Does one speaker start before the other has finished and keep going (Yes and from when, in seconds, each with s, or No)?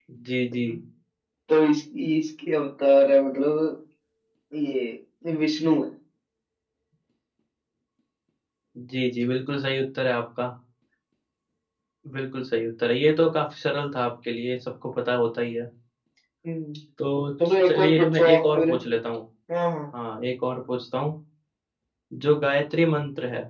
Yes, from 17.4 s